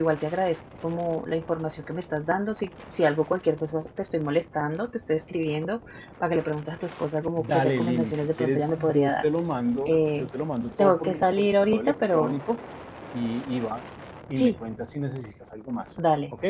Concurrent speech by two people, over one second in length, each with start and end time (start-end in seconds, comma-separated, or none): 7.4-9.2, 10.8-12.4